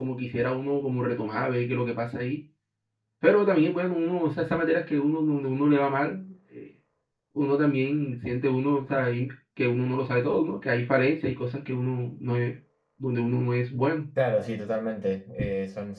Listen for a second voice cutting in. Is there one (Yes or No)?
No